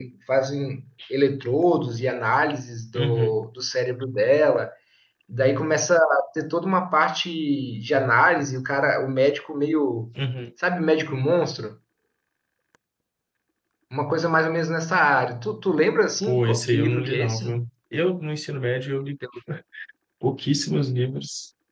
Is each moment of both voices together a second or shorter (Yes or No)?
No